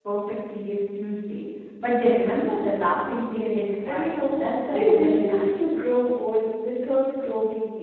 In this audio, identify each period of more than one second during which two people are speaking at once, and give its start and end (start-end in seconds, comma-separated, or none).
3.3-5.6